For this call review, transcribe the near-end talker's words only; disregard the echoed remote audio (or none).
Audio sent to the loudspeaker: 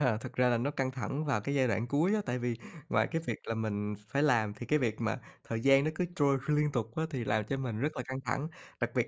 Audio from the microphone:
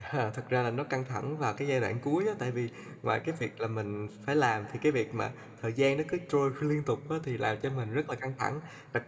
none